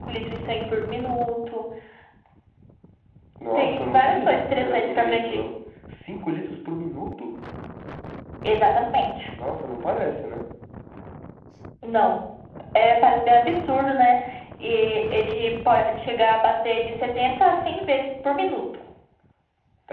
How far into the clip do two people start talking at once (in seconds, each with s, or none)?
3.5 s